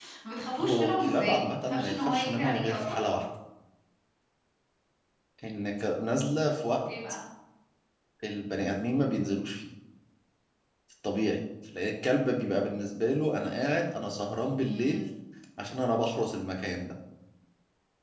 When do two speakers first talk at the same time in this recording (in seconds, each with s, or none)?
0.6 s